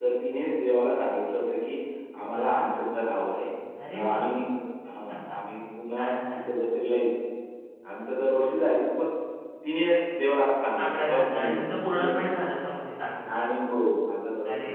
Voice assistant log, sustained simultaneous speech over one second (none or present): present